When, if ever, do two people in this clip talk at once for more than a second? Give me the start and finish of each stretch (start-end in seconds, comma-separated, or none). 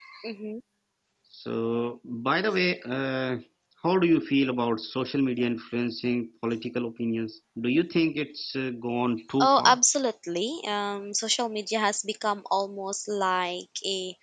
none